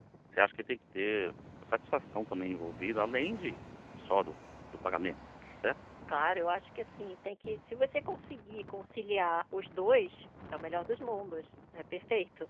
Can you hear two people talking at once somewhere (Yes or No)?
No